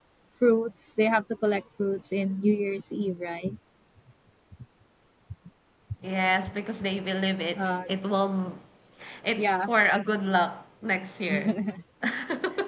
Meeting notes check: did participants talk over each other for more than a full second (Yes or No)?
No